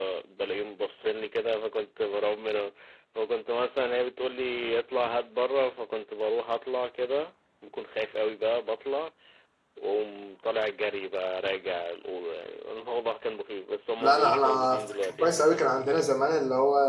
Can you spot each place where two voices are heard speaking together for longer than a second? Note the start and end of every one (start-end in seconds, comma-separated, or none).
14.0-16.1